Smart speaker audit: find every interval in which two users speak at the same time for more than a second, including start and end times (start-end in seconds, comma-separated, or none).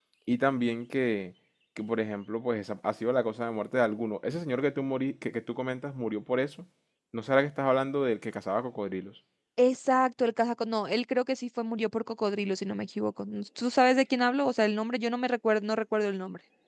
none